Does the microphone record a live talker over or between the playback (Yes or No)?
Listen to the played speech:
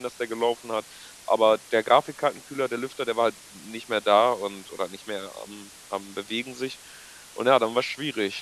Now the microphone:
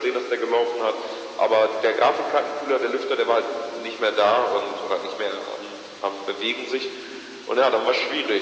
No